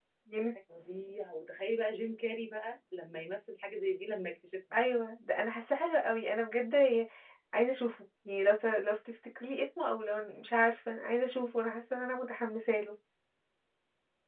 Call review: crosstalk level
none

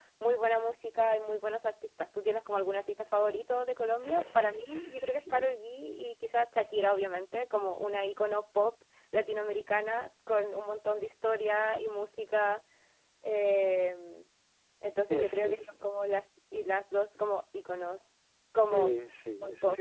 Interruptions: present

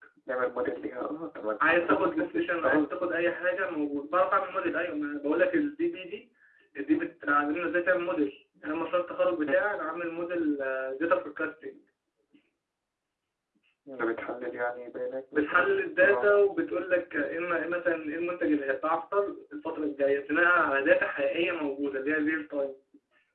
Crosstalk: present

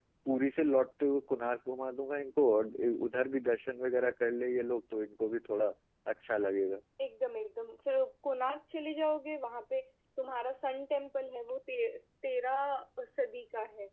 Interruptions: none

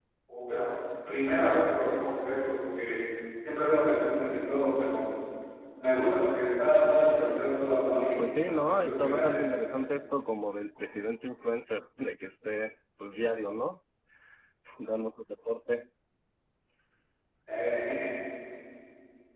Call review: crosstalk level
present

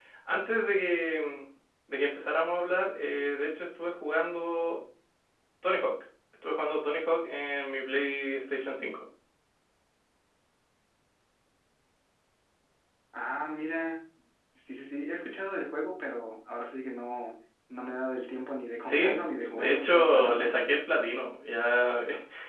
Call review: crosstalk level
present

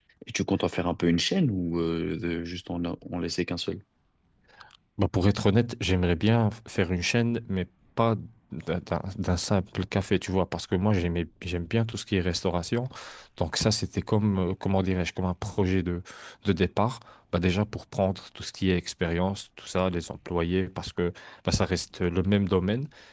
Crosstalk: none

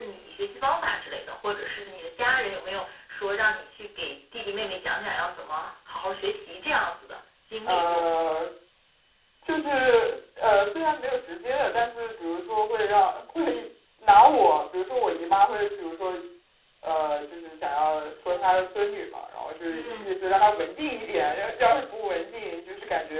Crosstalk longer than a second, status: none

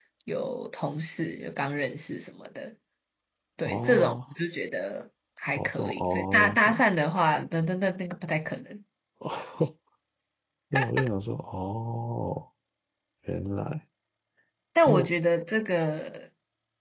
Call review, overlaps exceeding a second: present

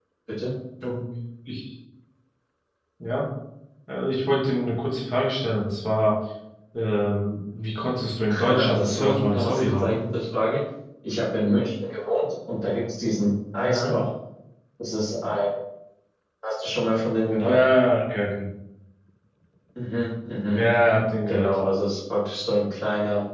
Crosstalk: present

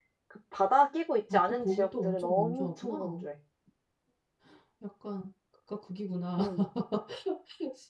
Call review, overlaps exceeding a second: present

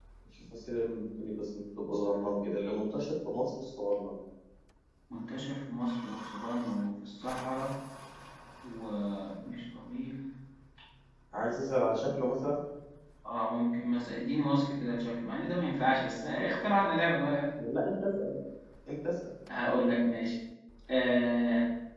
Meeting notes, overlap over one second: none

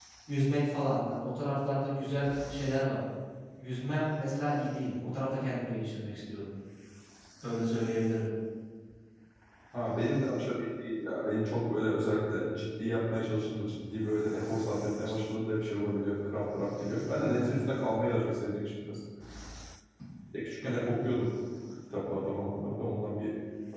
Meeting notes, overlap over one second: none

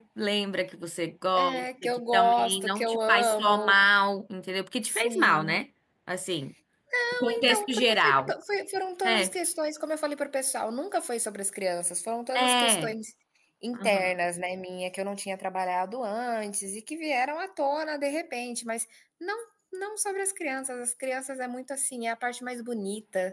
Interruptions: present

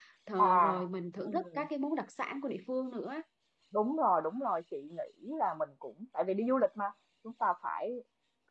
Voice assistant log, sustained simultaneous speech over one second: none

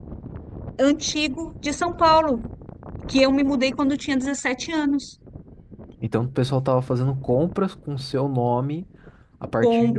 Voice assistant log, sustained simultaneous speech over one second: none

